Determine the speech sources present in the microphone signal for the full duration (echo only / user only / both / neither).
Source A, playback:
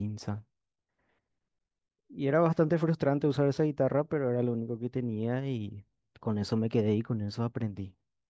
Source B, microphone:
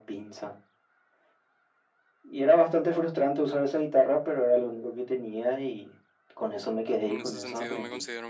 both